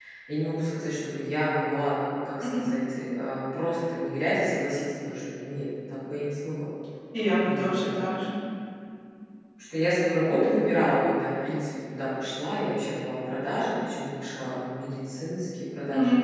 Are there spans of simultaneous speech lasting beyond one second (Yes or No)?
No